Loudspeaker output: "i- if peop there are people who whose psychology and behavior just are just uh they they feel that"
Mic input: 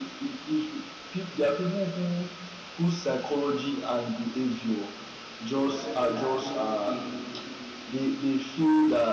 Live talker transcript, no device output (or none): the privacy now which we keep